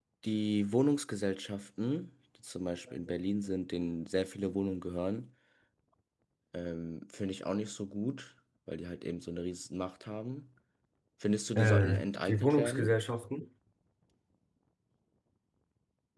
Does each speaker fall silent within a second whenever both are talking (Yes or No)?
No